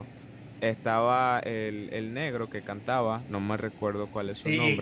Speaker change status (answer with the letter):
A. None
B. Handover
B